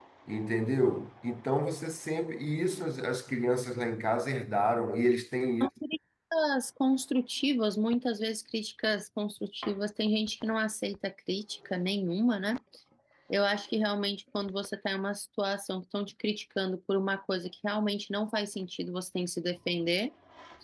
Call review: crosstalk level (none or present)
none